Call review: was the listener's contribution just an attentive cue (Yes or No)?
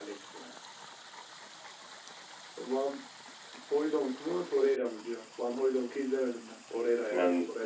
No